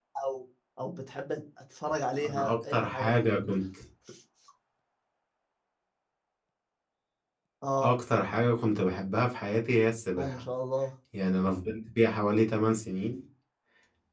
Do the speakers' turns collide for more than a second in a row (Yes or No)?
Yes